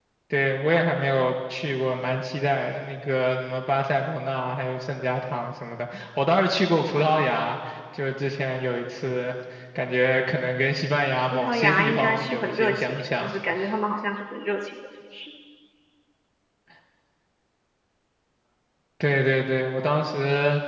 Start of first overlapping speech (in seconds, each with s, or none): 11.3 s